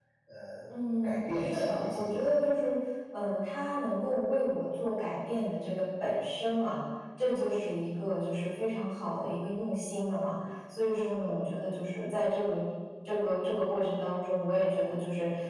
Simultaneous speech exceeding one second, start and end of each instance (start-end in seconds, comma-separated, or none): 0.8-2.4